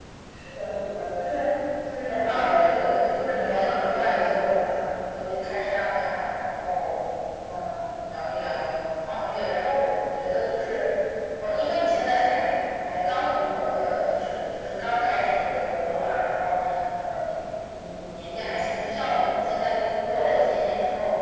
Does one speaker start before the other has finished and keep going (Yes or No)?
Yes